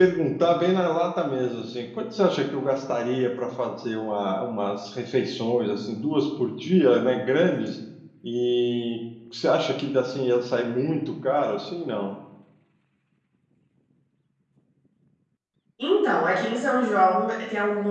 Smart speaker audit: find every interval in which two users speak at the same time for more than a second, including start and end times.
none

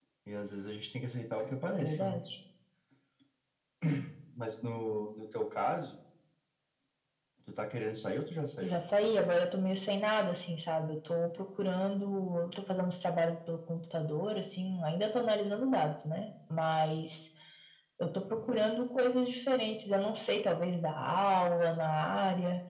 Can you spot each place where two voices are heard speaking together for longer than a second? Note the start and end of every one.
none

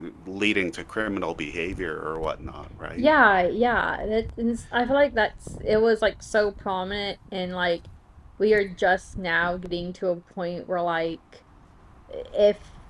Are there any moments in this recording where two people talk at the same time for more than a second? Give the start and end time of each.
none

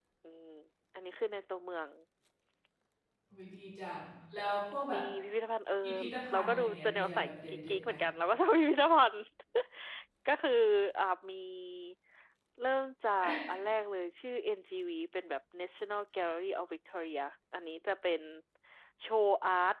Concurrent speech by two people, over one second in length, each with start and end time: 6.3-7.9

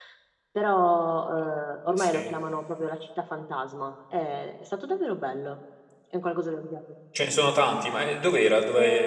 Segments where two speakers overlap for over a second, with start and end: none

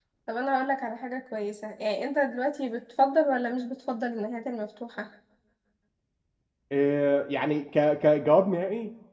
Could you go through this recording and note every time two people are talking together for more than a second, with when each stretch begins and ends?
none

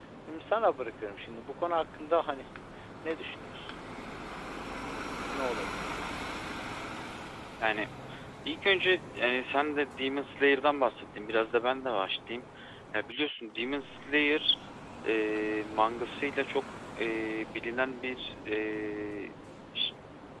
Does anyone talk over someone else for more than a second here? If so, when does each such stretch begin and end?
none

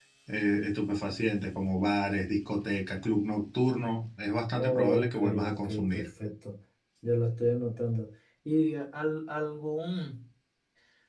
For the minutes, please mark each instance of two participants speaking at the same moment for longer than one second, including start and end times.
4.5-6.1

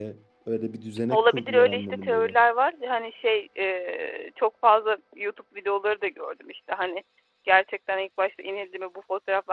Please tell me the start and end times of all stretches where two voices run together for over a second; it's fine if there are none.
1.1-2.4

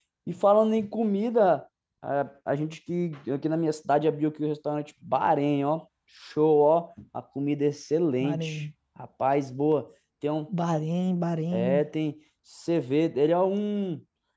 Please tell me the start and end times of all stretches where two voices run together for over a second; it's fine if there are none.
none

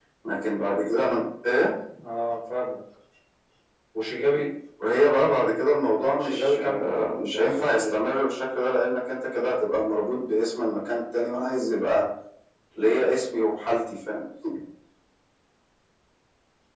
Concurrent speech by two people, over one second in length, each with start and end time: 6.2-8.0

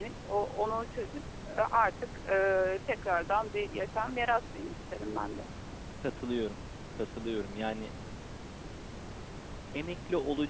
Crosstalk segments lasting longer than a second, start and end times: none

